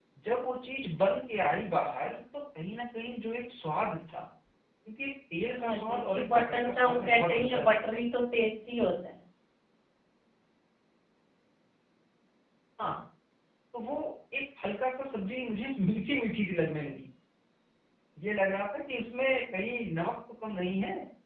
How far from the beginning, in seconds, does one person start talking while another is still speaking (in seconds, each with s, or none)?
5.6 s